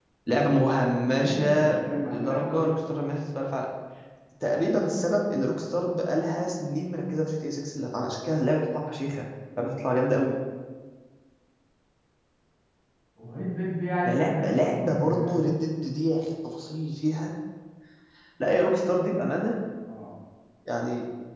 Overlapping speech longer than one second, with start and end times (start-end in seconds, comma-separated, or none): 1.0-2.7, 14.0-15.5